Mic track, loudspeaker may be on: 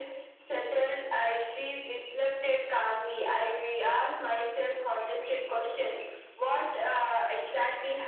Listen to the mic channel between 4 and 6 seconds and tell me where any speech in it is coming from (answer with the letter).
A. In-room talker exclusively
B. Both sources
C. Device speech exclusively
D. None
C